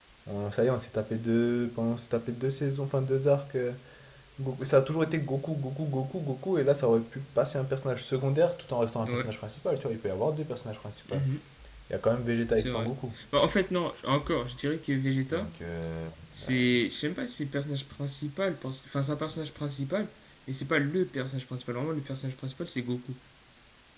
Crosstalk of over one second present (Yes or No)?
No